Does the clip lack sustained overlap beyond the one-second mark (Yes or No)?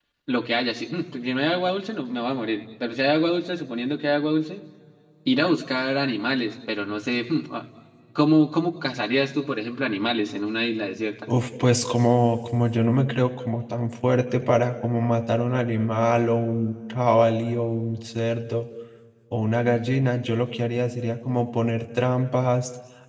Yes